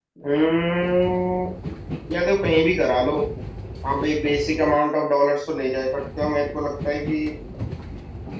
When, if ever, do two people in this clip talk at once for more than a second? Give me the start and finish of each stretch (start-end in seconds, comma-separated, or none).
none